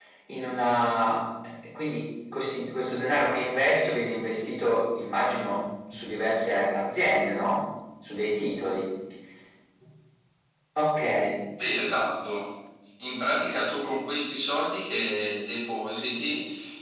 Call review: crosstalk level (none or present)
none